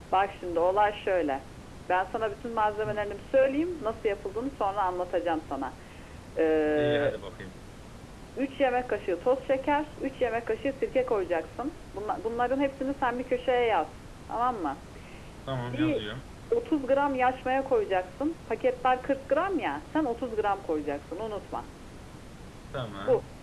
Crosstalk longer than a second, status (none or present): none